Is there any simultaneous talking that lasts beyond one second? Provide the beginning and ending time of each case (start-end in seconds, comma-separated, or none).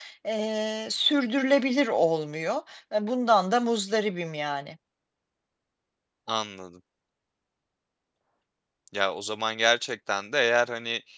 none